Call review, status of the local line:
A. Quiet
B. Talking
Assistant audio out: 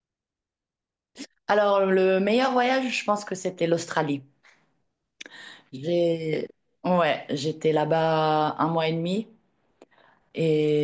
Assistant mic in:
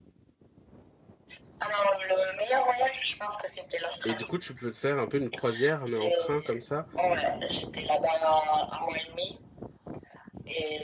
B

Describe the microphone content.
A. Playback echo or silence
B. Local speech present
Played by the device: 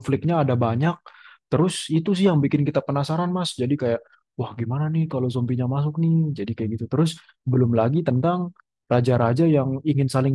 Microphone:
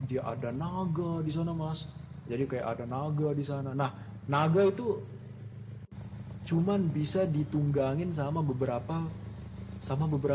B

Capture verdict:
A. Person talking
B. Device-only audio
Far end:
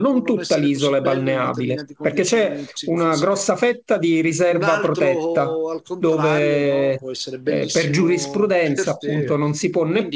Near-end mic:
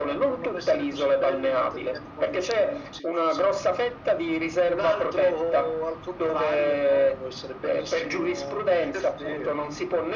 B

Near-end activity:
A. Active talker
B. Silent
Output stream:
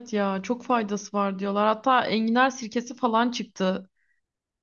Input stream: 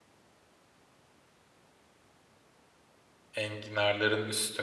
A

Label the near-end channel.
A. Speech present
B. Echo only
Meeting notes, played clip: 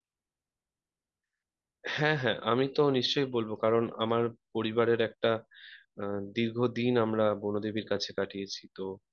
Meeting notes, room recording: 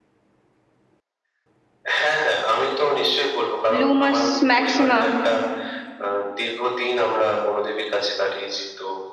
A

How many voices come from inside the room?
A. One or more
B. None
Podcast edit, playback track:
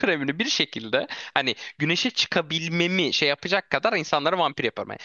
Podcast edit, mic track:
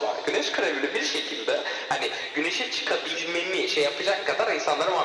B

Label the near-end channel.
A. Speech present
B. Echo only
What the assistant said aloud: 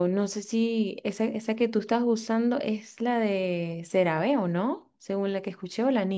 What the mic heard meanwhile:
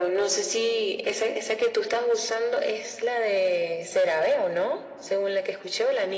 B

